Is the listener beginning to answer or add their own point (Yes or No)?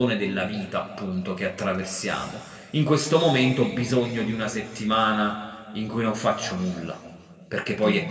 Yes